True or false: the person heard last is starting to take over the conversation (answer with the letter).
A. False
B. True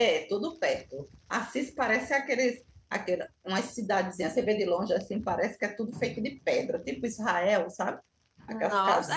B